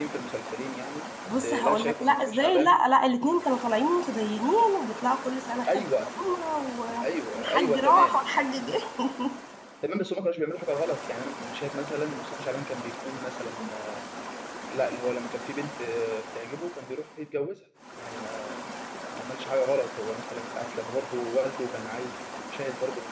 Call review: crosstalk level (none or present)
present